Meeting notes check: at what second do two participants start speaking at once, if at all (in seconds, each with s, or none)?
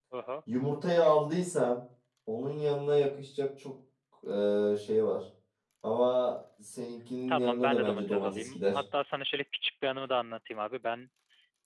7.3 s